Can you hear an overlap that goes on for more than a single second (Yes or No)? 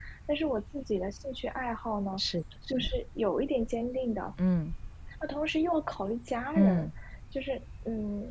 No